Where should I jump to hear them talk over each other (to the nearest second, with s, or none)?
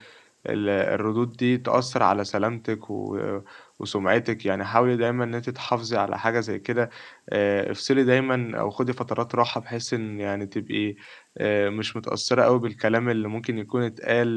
none